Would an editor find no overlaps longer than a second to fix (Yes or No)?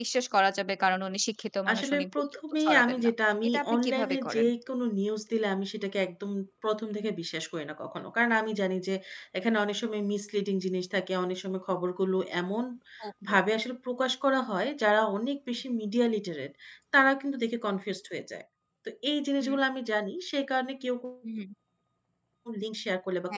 No